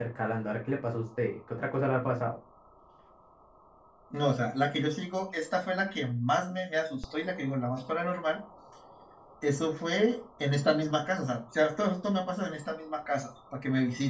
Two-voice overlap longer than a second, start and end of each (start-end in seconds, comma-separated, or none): none